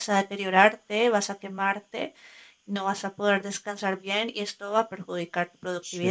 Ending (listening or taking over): taking over